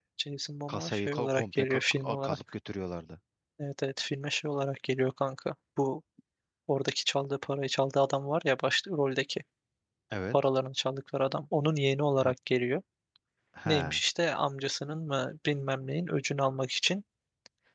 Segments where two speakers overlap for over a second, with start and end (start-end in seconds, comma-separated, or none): 0.7-2.4